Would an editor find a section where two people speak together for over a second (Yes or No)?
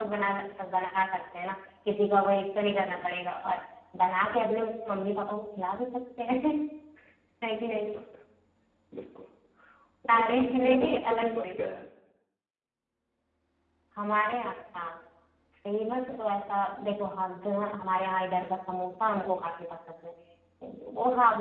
Yes